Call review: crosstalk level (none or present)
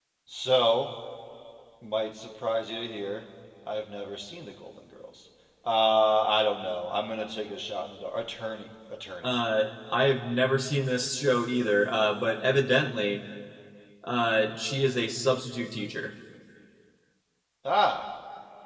none